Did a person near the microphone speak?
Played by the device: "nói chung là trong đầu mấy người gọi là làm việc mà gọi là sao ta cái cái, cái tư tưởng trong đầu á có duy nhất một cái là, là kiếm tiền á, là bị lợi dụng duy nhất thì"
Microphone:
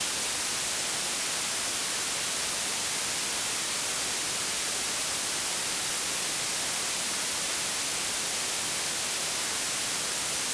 No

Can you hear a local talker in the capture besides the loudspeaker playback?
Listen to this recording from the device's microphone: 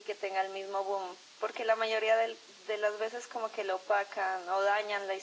No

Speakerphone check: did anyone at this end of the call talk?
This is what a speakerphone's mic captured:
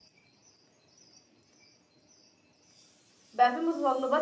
Yes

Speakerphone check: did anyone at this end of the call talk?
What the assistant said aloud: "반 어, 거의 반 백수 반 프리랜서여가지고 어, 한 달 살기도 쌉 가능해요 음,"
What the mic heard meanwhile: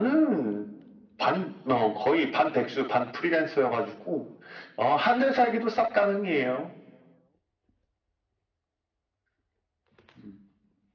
No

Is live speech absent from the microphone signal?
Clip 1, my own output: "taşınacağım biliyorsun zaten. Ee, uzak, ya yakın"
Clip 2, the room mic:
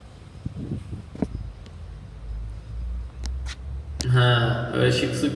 No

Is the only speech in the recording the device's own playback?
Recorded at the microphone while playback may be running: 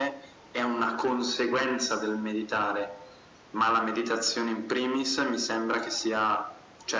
Yes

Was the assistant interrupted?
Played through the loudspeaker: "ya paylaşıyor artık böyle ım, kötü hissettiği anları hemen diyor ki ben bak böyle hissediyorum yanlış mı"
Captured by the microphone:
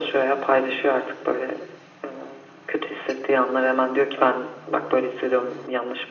No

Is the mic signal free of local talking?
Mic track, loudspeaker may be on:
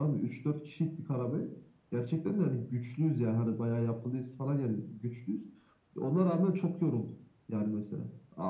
Yes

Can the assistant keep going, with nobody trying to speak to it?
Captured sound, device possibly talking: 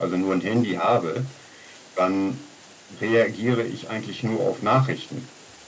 Yes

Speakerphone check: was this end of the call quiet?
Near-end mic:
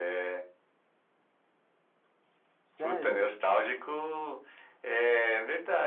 No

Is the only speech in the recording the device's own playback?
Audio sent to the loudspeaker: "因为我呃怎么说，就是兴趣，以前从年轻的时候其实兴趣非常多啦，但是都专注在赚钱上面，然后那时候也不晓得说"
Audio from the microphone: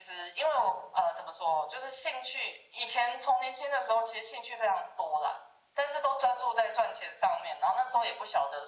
Yes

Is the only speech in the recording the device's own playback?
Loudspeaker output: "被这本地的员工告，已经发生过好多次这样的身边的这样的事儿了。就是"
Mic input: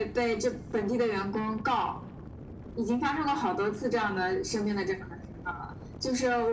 Yes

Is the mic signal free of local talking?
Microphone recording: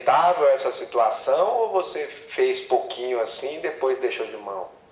Yes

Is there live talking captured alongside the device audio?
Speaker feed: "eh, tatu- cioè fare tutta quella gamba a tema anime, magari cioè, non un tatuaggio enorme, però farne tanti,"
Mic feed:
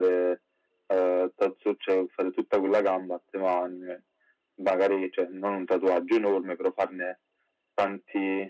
No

